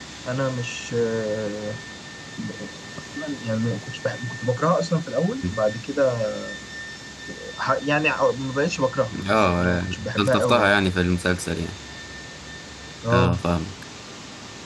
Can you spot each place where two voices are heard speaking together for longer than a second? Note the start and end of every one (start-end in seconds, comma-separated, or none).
9.3-10.8